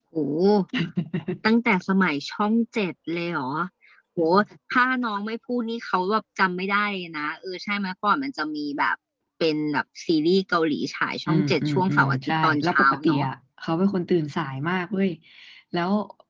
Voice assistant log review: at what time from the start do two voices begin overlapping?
11.3 s

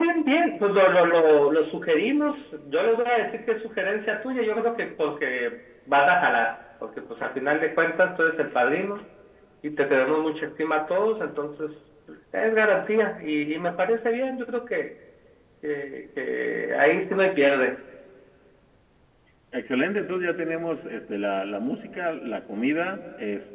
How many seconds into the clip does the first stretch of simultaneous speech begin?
none

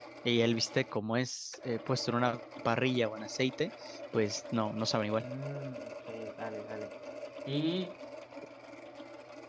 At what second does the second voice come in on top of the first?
none

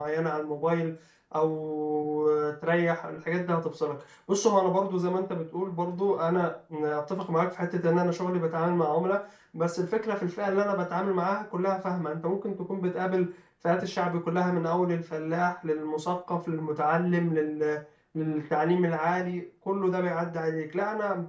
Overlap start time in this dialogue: none

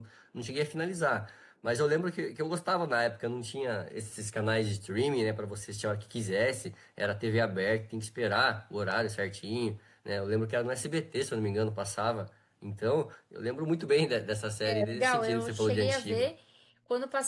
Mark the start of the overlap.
14.7 s

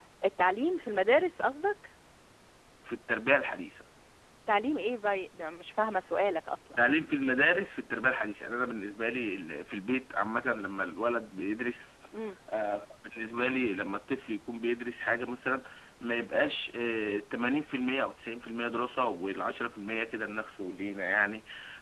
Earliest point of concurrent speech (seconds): none

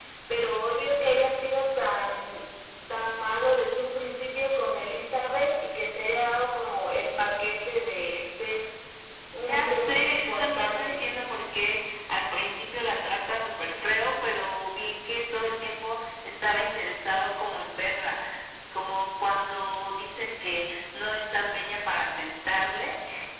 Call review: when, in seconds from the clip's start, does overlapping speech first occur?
9.5 s

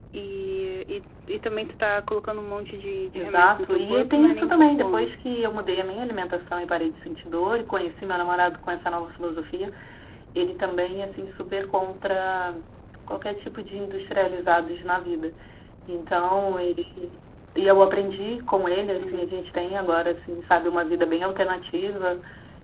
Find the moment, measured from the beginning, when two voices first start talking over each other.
3.1 s

